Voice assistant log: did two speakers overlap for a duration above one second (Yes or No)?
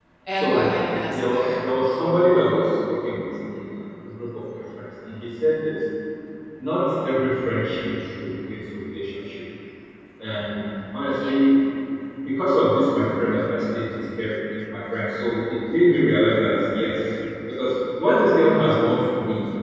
No